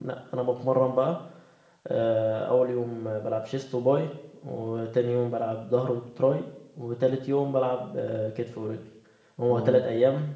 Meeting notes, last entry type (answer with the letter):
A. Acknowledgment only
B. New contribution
A